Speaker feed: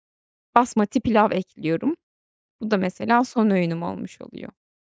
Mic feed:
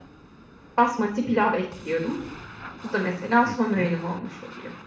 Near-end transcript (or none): Hı hı.